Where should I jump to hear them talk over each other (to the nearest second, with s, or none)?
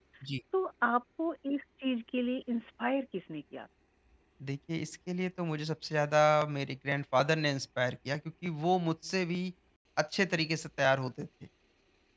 none